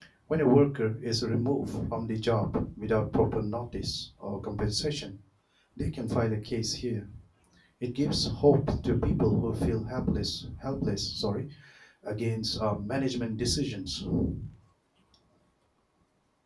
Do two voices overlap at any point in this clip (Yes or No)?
No